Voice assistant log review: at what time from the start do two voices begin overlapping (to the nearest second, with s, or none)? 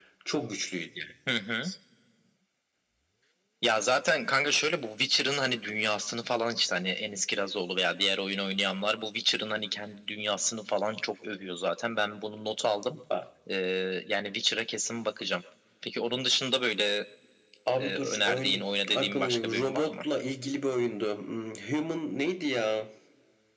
18 s